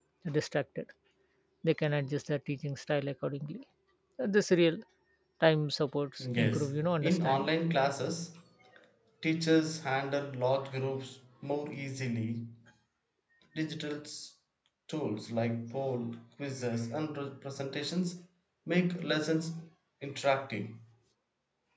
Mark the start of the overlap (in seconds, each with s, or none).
6.2 s